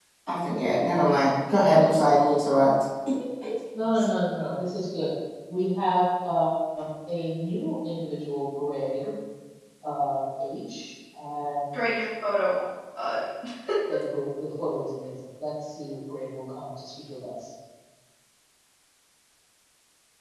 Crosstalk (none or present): none